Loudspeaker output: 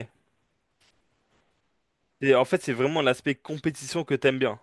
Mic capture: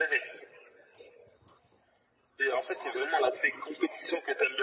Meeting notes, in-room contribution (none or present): none